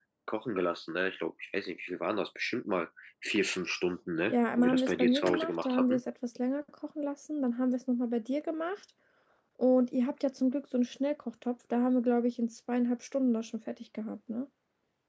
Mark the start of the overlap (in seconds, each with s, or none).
4.3 s